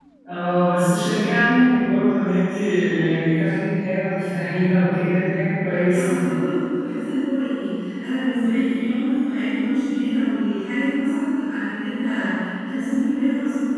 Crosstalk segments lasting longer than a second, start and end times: none

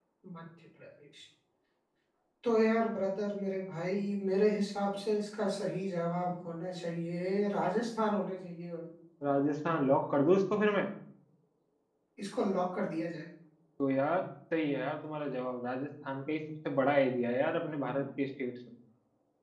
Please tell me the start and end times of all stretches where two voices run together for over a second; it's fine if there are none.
none

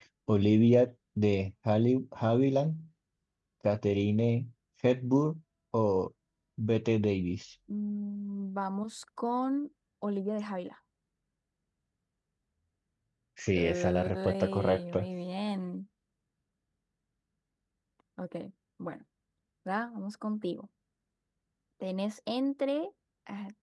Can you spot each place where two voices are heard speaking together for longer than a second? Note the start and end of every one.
13.5-15.1

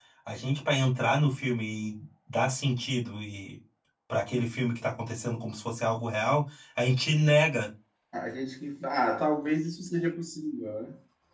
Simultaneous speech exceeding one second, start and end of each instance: none

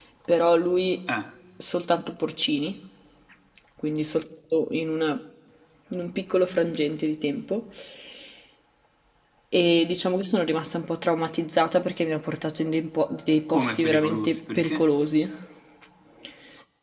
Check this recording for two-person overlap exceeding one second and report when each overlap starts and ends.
13.5-14.9

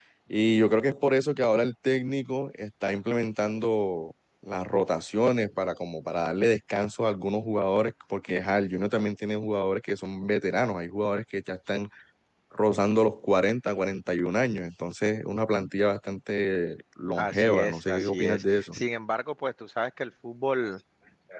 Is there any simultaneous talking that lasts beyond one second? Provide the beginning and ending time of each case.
17.2-18.8

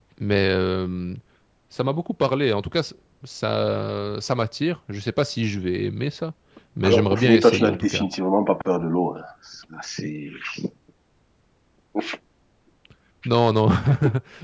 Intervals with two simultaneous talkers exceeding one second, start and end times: 6.8-8.1

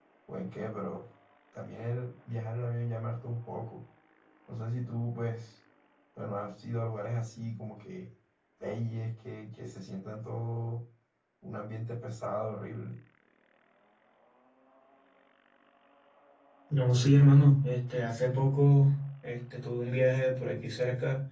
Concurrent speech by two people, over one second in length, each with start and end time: none

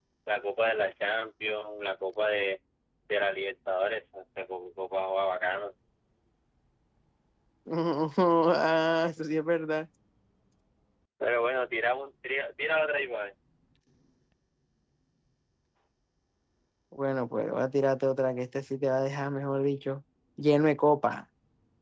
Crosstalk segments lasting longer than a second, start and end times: none

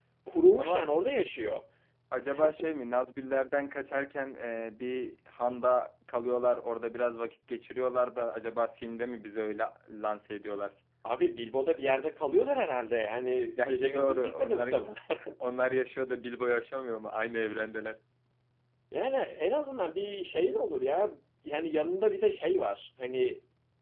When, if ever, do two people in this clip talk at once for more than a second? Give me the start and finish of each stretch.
13.6-14.8

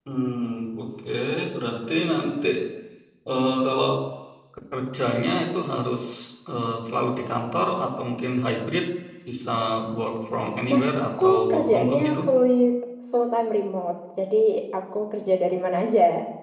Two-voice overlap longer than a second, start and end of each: 10.7-12.2

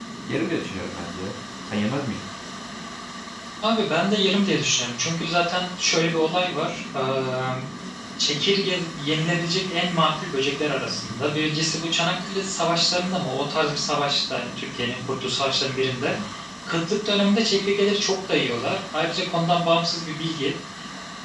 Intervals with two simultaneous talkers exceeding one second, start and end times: none

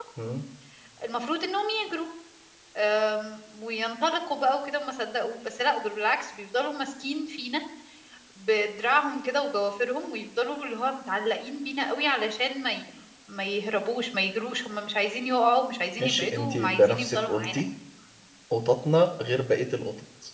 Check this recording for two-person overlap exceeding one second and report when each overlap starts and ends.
16.0-17.6

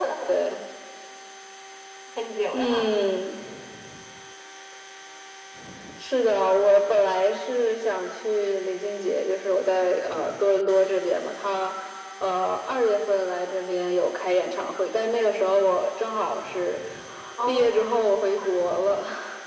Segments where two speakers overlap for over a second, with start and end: none

